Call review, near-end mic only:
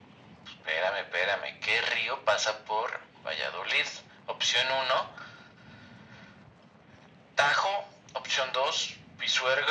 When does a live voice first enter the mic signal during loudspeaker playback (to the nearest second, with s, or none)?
none